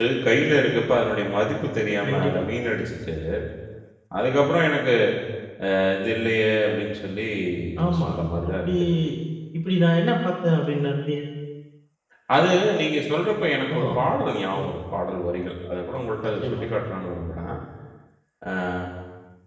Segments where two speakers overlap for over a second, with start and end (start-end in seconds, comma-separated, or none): none